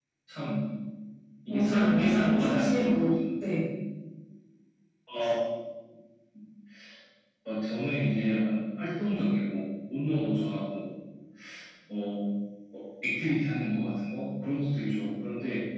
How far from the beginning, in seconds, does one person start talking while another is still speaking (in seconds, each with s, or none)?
1.5 s